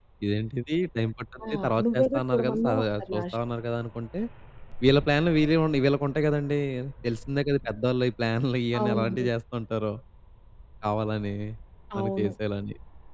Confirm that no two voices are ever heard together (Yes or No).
No